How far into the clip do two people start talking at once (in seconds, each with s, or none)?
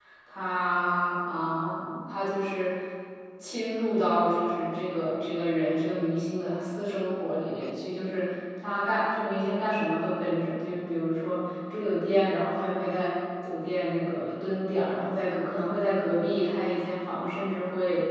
none